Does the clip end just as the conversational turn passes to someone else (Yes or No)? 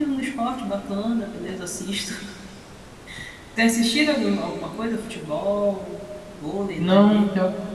Yes